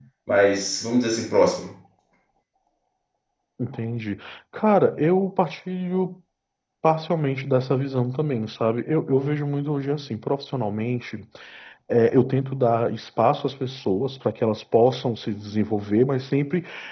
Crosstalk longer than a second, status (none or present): none